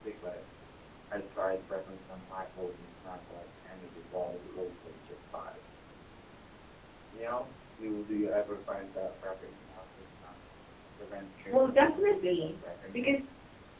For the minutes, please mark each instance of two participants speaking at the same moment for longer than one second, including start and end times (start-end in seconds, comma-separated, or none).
11.5-13.2